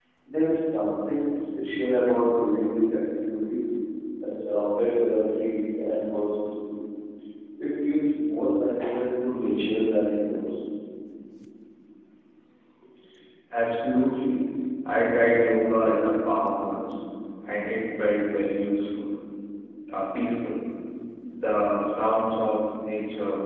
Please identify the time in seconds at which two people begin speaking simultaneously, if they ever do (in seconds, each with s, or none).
none